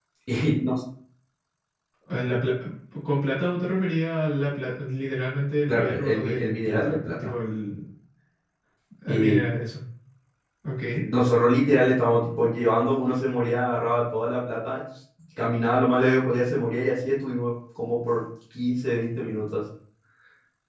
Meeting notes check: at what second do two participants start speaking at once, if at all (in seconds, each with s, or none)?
5.7 s